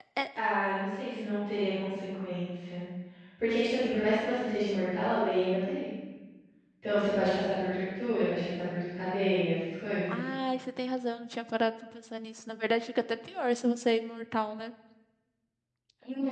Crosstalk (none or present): none